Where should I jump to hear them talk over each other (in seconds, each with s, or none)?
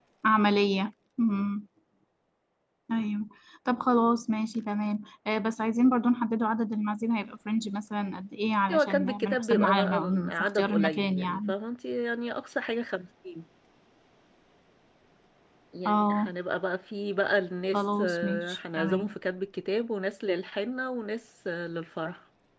8.7 s